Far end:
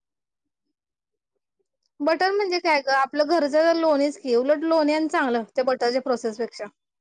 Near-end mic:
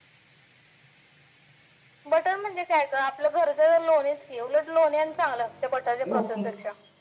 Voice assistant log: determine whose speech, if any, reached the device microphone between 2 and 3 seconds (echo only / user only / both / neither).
echo only